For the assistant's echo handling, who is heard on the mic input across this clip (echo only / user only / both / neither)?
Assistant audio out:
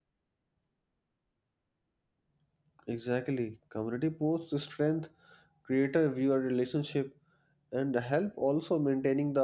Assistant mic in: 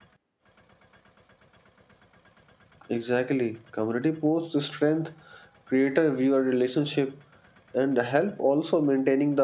echo only